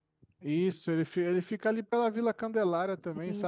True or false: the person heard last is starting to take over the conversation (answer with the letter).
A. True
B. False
A